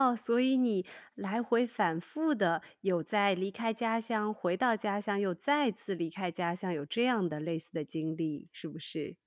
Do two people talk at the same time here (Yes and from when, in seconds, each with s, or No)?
No